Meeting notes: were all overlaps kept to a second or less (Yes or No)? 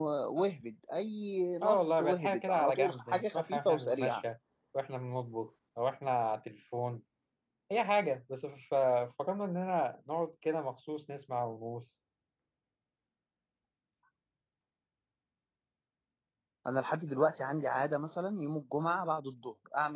No